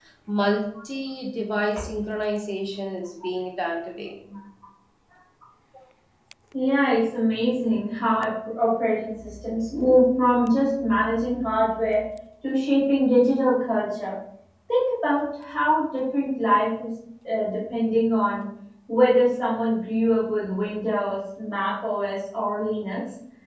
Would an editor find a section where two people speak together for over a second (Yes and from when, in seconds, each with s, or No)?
No